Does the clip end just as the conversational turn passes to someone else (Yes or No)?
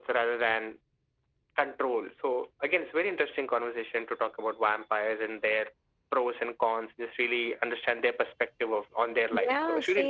Yes